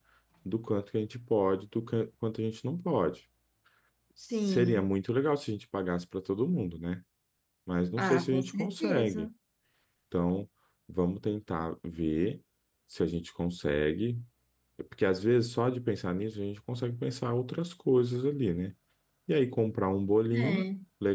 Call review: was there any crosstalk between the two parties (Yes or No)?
Yes